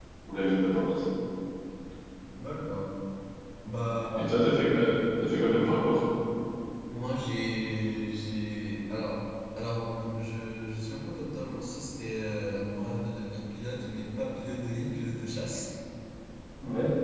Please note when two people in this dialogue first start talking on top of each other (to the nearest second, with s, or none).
none